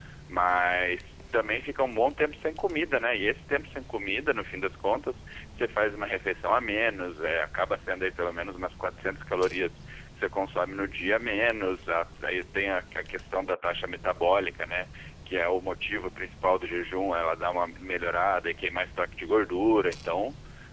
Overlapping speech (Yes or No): No